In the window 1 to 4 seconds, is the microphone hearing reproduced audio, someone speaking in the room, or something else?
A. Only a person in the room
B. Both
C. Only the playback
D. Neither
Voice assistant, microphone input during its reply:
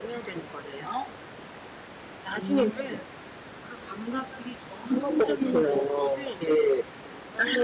C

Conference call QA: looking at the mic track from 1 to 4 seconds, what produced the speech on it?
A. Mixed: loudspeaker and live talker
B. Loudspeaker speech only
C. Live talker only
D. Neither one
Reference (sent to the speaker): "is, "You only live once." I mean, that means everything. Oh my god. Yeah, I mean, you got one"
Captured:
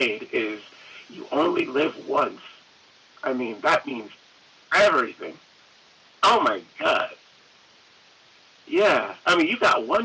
B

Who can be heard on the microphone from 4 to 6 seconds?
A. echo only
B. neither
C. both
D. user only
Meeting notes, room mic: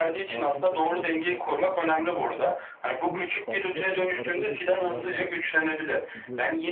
C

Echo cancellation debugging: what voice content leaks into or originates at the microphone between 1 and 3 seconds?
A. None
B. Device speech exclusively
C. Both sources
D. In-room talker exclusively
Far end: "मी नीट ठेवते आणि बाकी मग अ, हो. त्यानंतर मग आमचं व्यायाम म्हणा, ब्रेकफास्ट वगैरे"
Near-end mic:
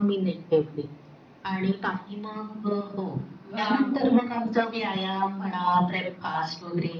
B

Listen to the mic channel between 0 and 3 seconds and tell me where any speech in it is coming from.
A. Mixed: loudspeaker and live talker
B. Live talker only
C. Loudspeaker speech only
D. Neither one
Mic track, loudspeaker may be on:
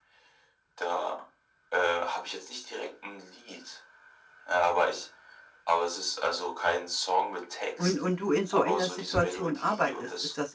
C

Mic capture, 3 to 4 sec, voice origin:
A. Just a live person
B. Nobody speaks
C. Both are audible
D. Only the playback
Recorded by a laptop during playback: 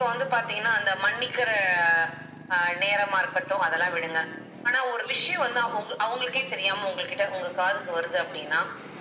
D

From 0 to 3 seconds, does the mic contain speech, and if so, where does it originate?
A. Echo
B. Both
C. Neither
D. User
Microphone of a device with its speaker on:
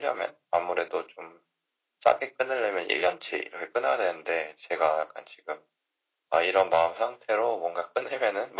A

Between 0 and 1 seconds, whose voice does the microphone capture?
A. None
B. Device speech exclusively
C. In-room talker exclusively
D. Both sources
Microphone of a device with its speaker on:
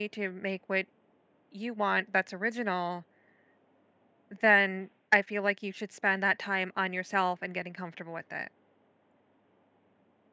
C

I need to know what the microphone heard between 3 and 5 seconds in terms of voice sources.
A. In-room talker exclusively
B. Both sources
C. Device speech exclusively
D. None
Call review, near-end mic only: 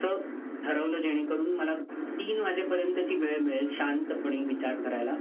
C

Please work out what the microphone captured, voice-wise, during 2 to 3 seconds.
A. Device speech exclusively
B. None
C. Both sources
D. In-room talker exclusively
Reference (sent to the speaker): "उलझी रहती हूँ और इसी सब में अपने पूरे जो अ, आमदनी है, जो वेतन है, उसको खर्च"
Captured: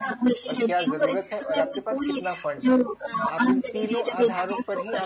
C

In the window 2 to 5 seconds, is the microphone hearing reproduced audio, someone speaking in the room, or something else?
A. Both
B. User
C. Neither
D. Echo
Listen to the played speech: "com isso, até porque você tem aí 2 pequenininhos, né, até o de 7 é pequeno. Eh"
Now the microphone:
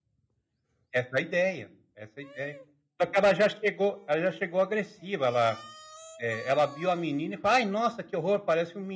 B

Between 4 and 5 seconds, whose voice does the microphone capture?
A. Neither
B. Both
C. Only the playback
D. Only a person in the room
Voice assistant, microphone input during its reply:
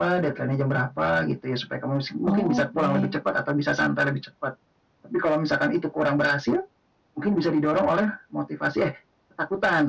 C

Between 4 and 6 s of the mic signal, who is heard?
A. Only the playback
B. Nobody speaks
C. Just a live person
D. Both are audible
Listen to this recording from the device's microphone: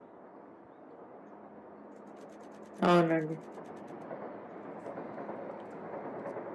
B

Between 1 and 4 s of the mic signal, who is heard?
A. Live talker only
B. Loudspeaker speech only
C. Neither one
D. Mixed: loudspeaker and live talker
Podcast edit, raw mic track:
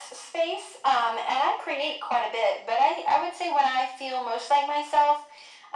B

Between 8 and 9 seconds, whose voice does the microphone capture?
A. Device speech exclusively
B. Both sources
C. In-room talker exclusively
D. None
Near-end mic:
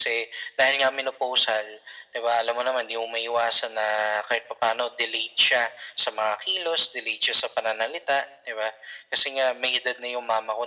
A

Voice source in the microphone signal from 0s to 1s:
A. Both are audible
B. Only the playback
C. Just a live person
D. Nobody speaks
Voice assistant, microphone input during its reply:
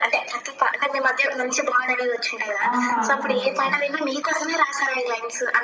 B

